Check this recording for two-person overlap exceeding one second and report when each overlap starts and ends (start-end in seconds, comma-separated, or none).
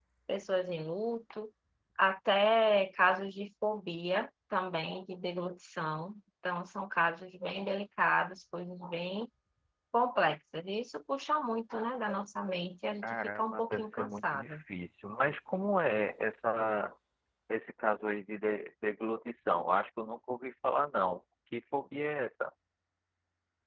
13.0-14.6